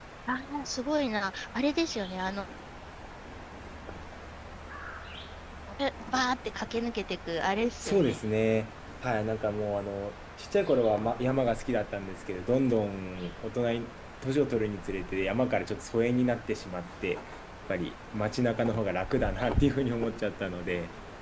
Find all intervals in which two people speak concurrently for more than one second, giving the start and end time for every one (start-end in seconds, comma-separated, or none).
none